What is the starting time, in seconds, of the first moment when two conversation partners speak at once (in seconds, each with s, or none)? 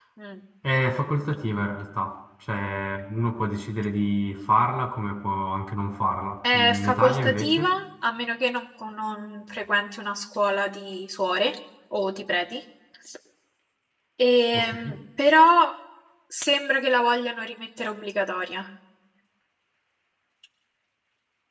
6.5 s